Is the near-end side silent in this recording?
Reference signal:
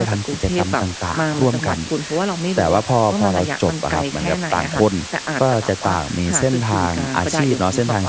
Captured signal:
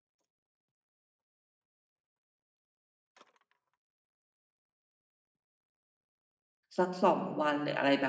No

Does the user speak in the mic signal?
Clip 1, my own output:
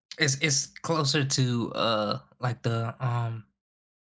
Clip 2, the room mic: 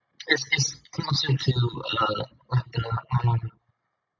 No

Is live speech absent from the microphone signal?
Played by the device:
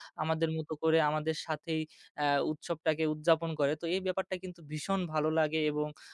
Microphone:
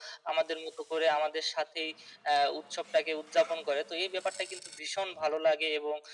Yes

